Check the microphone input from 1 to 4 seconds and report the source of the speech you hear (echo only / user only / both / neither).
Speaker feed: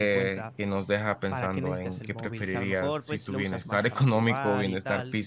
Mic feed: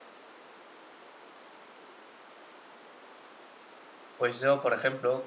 neither